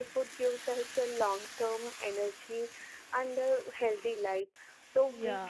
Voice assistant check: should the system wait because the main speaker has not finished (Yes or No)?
Yes